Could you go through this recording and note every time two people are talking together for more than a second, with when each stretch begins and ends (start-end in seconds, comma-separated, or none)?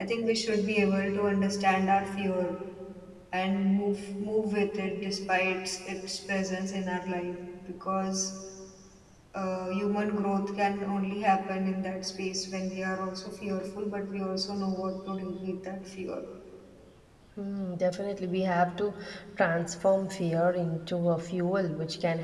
none